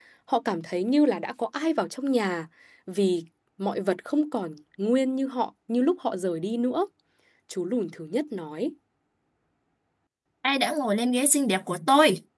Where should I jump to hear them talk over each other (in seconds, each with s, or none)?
none